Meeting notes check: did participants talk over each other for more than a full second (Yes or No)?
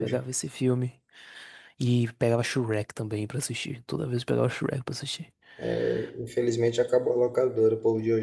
No